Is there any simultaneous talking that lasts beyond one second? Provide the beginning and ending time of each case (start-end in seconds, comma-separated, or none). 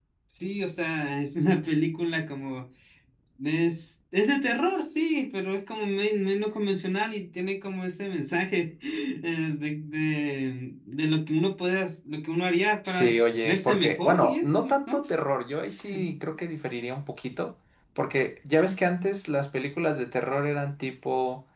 12.9-15.0